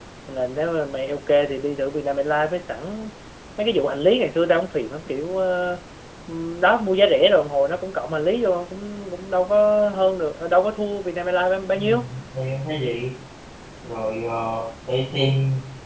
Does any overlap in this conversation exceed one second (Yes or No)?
No